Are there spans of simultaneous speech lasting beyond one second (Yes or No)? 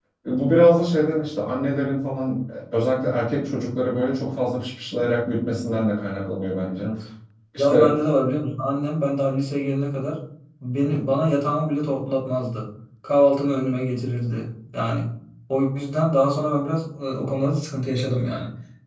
No